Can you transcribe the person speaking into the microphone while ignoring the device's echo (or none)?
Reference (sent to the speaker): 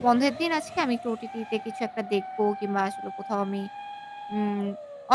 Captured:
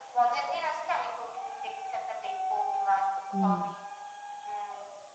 হুম।